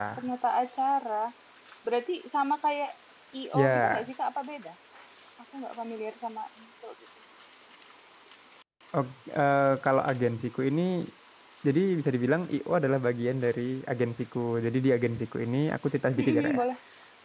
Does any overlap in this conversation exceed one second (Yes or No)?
No